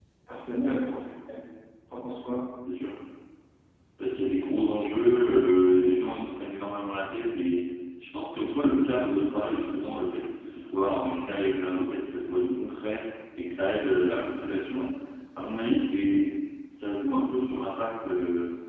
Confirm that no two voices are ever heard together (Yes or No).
Yes